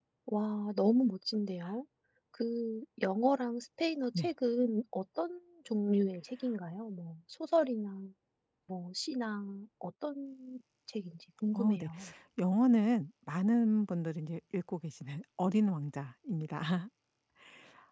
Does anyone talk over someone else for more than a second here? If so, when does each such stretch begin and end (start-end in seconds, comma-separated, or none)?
none